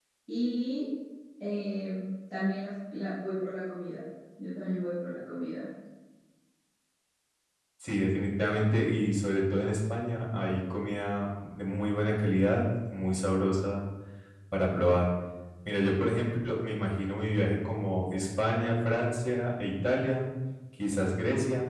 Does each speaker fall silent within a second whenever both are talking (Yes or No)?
Yes